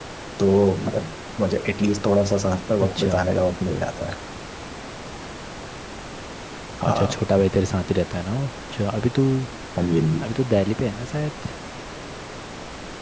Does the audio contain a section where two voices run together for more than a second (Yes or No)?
No